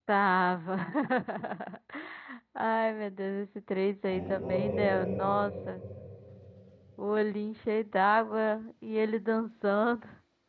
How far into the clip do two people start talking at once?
4.1 s

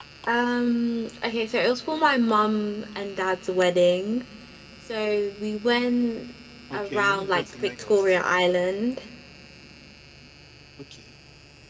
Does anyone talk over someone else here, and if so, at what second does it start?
6.7 s

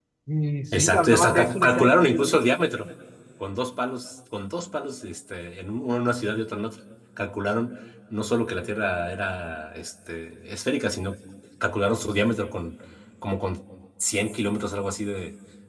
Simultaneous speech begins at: 0.8 s

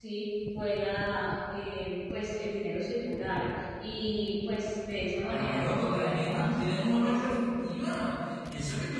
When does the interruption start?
5.3 s

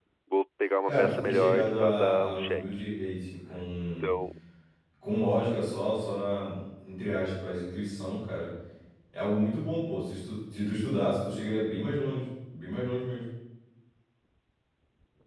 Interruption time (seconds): 0.8 s

